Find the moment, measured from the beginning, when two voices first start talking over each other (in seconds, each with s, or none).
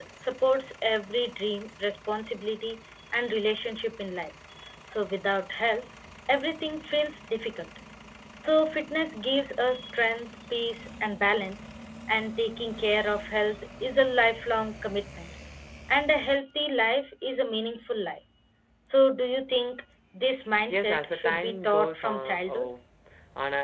20.7 s